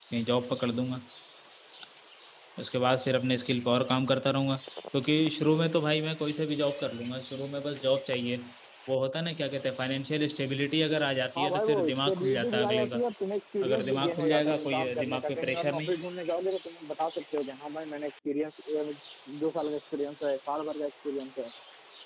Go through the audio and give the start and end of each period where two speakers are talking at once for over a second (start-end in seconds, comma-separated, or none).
11.4-13.0, 13.6-15.9